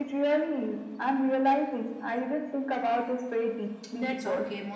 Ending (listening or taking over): taking over